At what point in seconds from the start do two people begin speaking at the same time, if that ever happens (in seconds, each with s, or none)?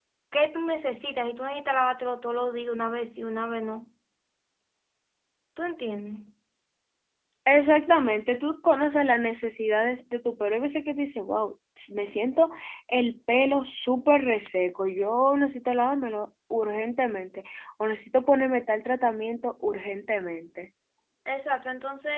none